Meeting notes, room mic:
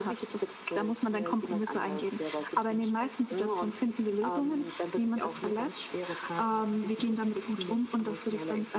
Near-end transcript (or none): none